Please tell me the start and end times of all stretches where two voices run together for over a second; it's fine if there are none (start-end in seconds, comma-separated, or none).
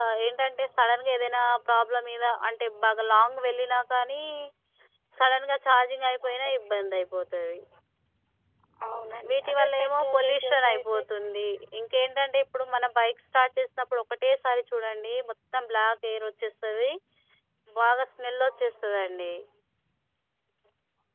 9.3-11.0